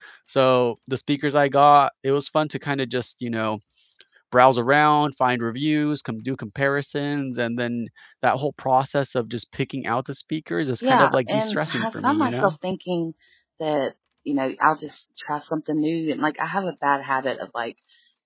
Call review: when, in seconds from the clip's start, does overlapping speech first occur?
10.8 s

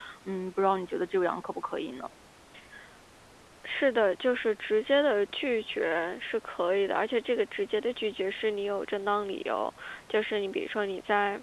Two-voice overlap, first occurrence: none

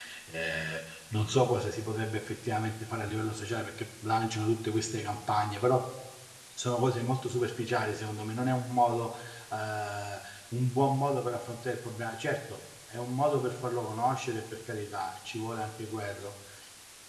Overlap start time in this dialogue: none

